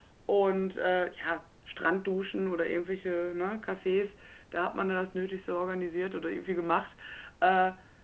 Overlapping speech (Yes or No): No